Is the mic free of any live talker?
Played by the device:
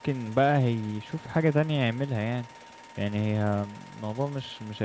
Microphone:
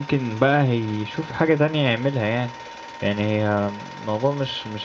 Yes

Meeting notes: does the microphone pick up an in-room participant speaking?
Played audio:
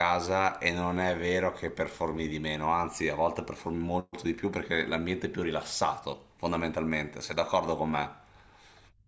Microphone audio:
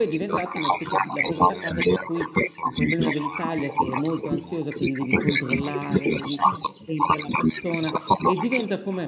Yes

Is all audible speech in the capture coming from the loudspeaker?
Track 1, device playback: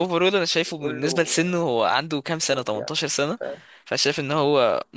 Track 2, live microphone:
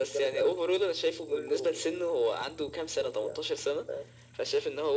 Yes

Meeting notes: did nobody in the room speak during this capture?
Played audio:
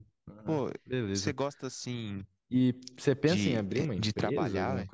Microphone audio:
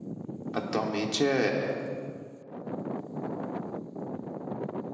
No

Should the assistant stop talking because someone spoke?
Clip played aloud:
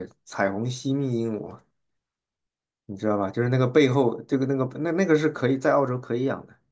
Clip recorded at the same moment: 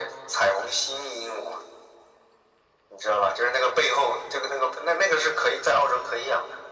No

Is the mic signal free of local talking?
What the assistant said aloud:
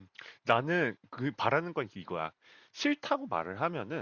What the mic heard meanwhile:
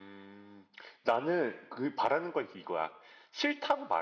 Yes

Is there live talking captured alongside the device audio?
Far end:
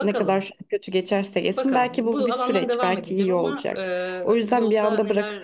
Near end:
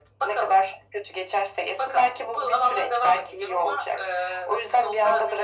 No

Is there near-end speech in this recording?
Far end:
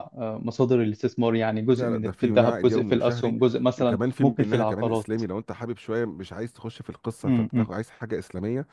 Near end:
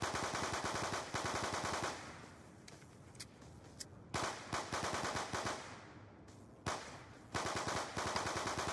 No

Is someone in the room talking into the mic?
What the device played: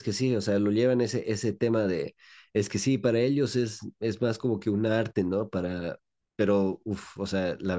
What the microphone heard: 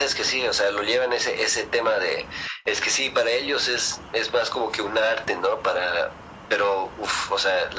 No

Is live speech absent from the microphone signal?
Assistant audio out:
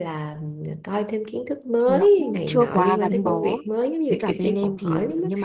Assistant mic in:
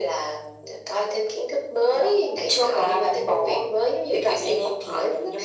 Yes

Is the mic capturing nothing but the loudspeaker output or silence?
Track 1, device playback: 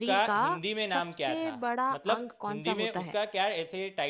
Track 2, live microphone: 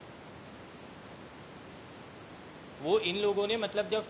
No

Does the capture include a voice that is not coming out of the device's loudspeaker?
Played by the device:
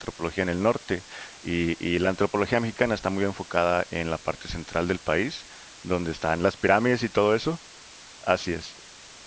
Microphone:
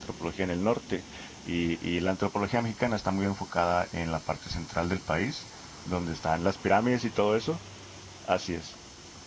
No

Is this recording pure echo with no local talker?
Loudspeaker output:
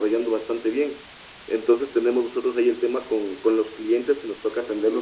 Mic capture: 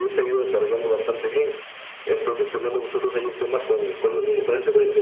No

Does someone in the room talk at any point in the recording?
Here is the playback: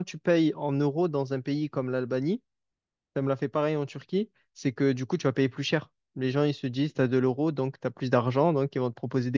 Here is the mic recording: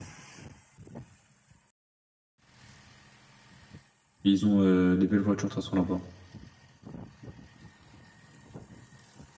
Yes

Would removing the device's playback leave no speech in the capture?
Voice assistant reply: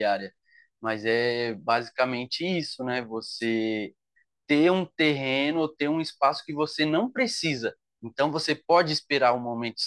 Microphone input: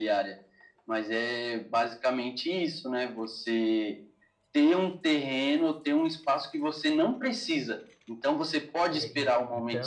No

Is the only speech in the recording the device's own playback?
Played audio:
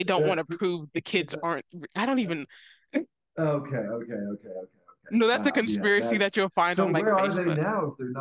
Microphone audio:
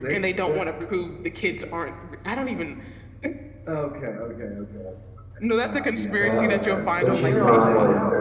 No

